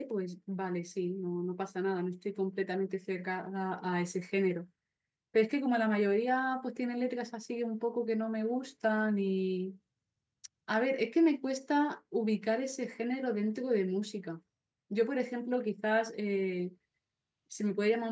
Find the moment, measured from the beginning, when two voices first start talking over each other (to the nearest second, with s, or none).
none